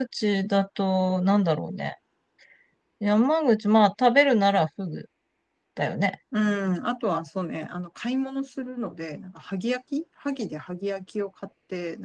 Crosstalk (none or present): none